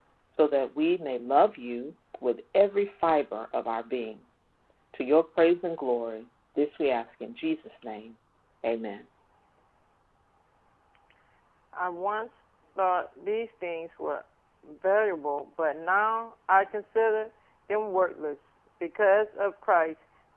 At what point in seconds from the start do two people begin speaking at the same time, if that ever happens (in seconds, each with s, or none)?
none